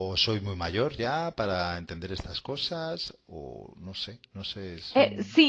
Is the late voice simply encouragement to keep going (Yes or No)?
No